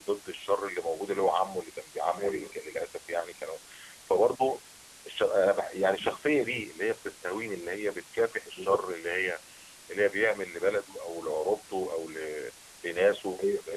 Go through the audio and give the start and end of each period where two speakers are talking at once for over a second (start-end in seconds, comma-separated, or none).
none